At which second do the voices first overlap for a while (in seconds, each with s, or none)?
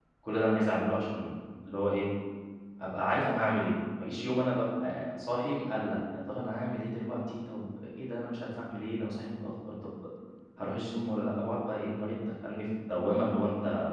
none